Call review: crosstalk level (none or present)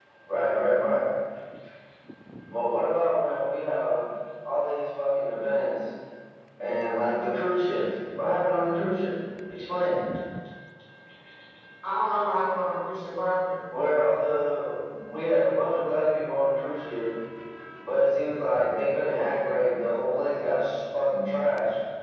none